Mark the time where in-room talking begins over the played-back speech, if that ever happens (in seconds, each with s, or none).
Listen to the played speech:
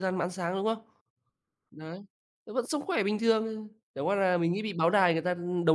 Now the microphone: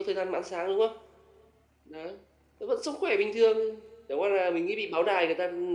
none